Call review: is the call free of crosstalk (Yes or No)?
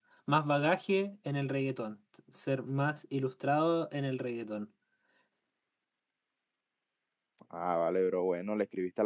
Yes